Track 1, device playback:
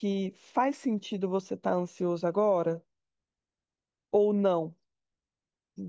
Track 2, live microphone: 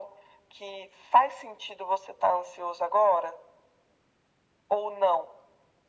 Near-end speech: none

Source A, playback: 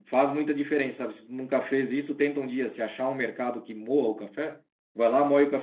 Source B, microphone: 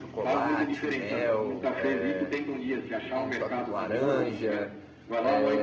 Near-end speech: present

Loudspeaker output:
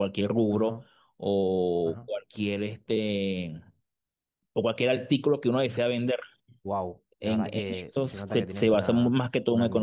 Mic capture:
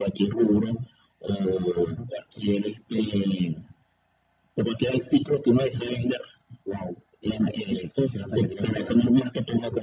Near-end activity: none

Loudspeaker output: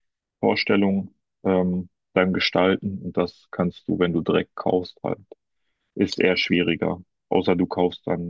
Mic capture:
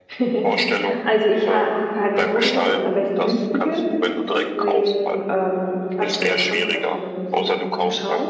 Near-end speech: present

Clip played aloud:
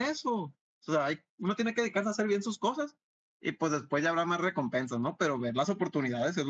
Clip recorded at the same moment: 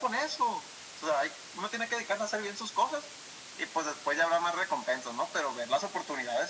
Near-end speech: none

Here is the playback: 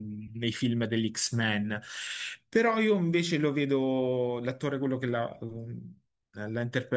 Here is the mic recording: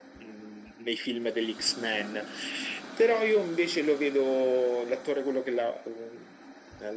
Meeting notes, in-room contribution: none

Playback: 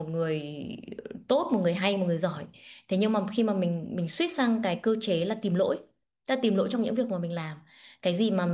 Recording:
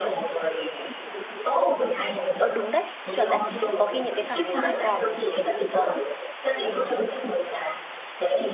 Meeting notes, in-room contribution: present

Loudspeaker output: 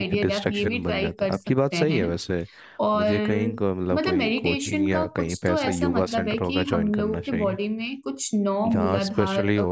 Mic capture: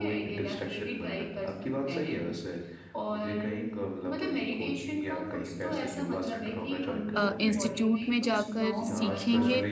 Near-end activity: present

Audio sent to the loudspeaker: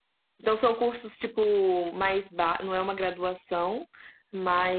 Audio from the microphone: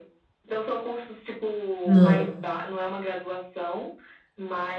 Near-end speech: present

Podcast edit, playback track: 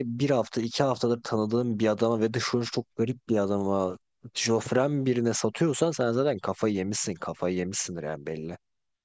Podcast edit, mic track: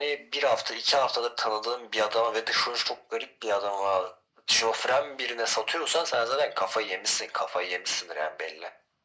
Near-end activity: none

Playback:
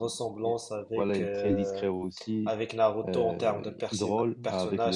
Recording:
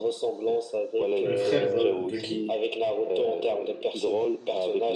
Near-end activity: present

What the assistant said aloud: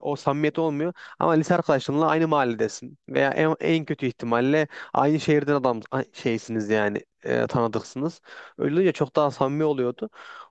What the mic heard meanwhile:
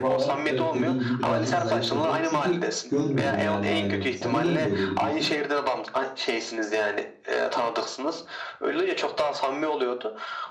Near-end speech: present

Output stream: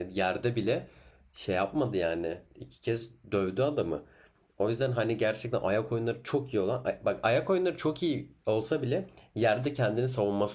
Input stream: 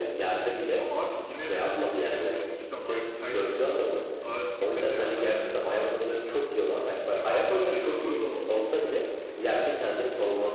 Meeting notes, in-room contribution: present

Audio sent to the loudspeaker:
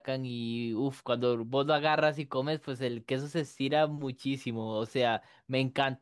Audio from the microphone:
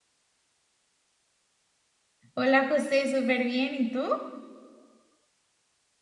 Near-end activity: present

